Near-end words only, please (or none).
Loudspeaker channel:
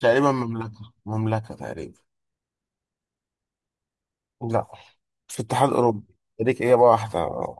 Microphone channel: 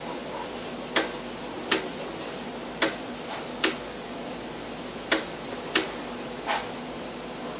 none